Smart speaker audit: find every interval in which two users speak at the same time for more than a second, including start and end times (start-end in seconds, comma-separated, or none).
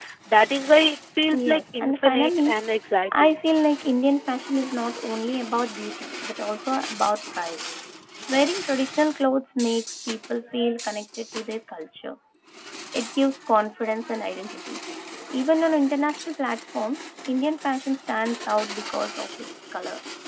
1.3-2.5